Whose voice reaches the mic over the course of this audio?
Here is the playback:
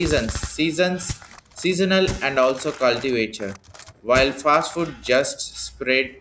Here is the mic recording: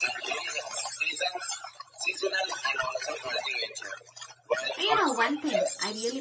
both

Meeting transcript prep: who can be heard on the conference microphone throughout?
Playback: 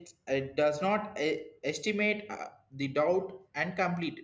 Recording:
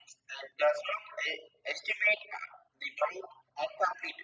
echo only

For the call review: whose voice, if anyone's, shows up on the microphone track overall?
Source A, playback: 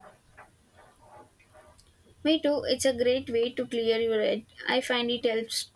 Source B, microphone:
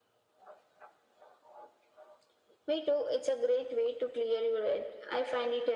echo only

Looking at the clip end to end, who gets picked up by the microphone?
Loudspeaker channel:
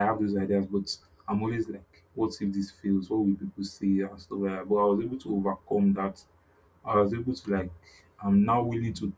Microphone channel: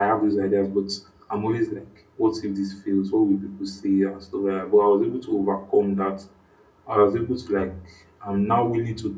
echo only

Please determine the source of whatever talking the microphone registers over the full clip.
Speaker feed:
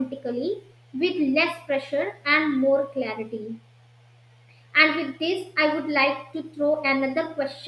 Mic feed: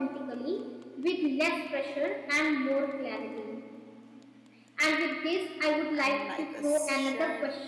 both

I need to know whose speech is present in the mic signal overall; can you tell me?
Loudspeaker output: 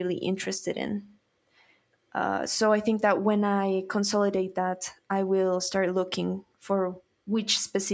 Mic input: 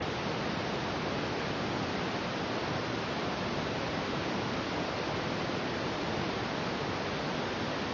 neither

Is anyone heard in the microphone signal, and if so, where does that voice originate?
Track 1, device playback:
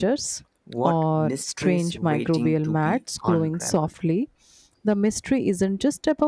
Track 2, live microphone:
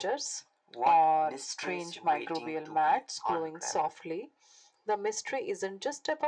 echo only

